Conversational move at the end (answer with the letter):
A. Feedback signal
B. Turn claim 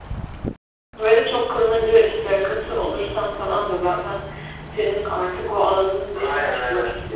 B